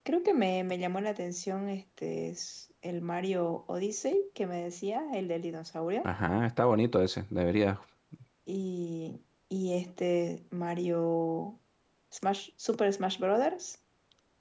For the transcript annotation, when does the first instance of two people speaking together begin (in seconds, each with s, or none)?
none